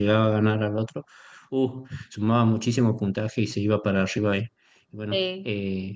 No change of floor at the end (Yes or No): Yes